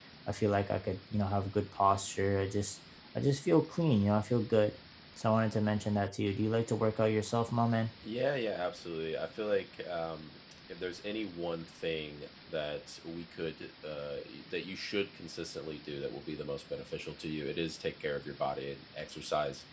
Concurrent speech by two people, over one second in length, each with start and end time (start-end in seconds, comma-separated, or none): none